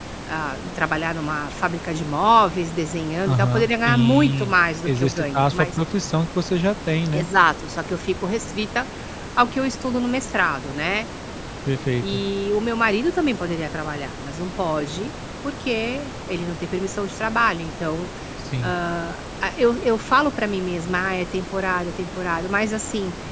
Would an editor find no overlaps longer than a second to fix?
No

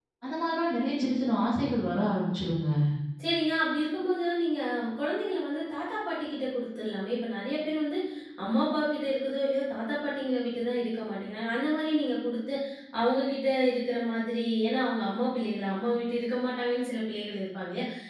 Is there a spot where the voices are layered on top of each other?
No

